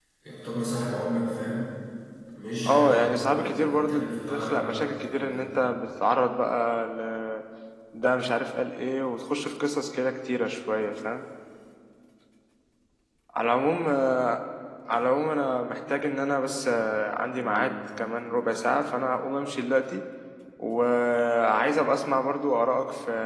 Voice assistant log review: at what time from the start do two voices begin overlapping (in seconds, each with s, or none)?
2.7 s